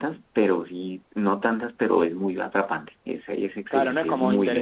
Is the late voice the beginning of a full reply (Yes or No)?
Yes